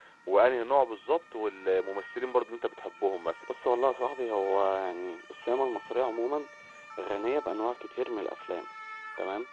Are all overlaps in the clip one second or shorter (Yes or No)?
Yes